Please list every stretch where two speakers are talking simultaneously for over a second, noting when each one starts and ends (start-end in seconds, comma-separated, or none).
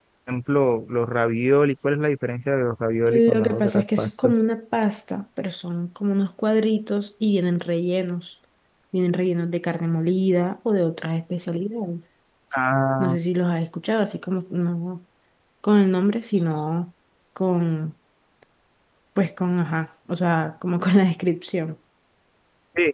3.0-4.3